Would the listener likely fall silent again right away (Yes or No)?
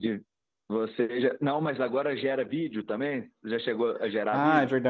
No